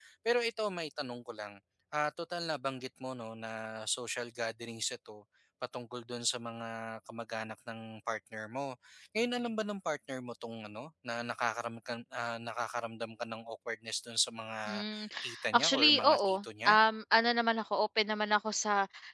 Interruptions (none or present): present